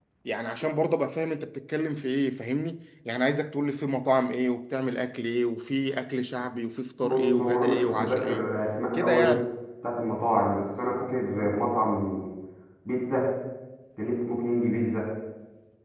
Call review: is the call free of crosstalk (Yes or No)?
No